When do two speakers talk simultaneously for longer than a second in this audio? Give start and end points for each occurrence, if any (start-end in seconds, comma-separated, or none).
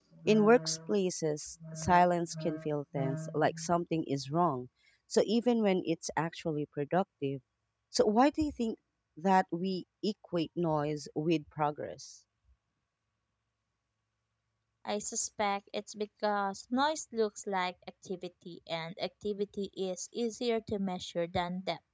none